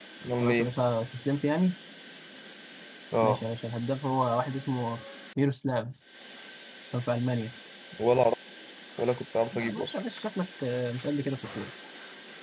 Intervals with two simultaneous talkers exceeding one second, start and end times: none

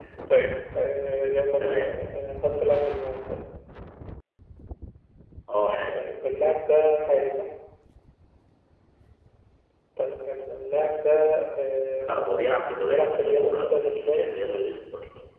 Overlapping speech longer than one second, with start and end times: 12.9-14.3

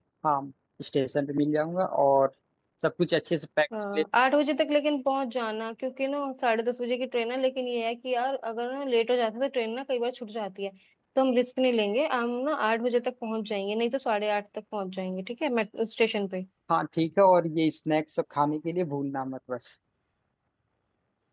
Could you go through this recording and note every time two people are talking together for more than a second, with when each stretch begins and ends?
none

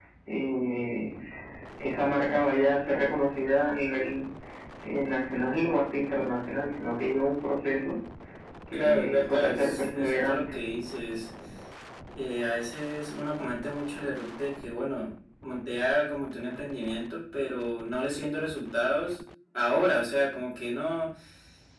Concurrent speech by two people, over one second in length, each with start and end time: 8.7-10.5

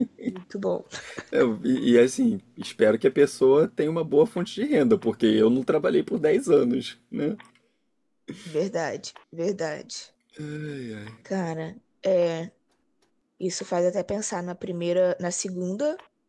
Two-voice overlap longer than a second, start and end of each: none

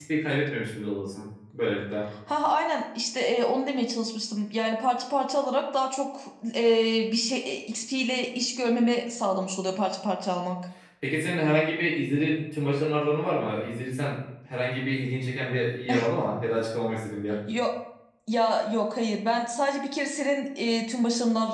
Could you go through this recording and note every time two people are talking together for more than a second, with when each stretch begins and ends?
none

